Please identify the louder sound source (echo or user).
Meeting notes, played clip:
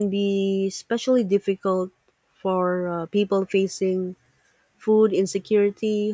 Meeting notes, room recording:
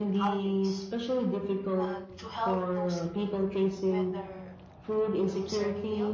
echo